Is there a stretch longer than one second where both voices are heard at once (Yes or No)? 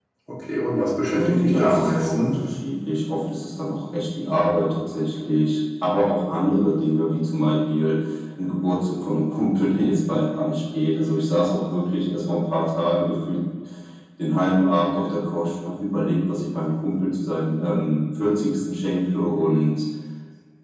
Yes